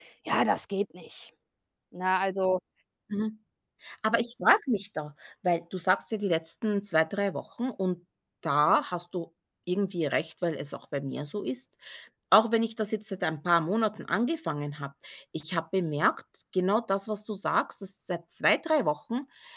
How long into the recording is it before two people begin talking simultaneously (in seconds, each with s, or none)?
none